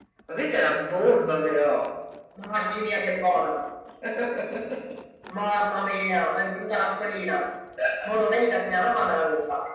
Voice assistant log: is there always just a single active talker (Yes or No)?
Yes